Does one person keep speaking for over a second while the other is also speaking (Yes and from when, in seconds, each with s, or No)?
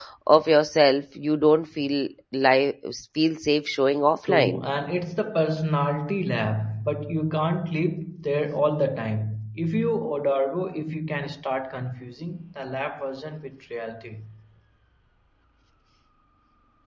No